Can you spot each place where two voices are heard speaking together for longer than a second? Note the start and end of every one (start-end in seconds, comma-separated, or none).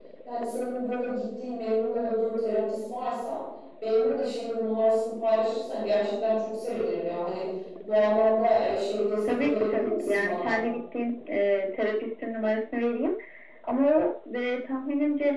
9.3-10.6